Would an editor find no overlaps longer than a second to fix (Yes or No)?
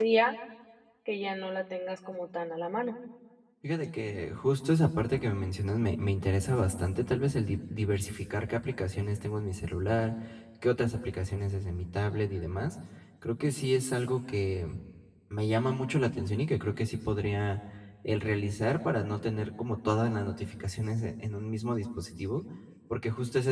Yes